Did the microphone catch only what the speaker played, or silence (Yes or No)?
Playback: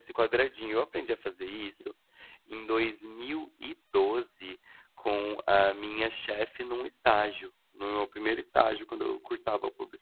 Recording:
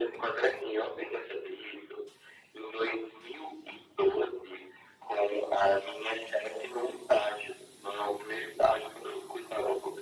Yes